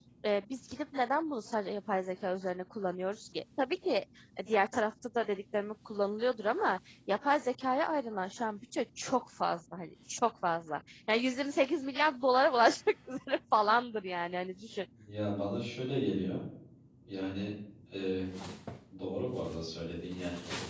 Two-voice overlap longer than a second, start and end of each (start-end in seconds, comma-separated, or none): none